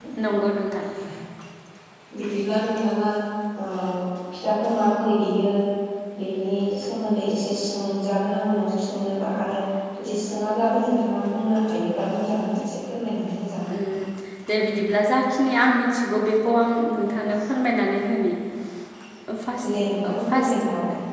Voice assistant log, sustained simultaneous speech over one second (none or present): none